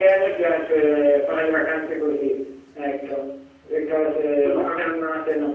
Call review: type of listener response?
listening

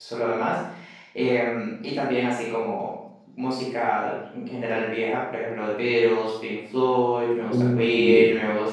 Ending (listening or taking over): listening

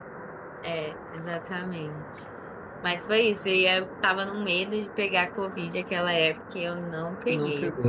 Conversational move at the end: listening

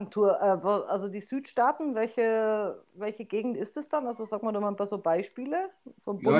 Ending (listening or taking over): taking over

